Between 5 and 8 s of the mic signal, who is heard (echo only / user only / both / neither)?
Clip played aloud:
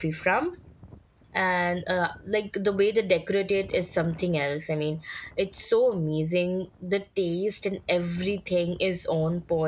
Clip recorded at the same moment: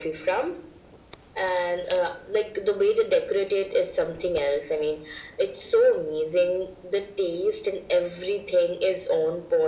echo only